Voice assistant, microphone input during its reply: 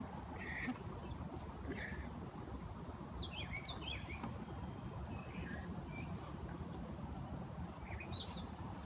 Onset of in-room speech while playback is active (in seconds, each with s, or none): none